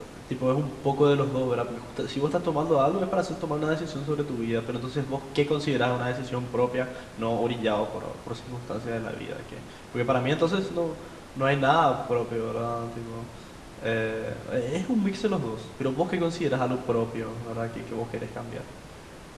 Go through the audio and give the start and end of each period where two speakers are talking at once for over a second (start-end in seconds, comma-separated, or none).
none